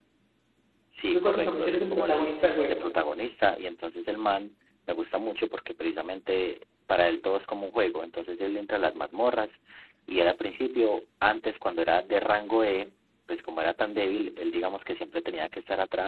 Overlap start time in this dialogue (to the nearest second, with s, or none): 1 s